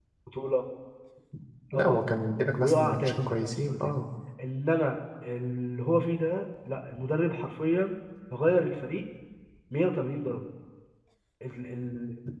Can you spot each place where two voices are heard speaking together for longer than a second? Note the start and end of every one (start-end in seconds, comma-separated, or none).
2.6-4.0